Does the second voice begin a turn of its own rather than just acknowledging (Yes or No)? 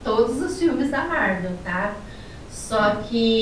No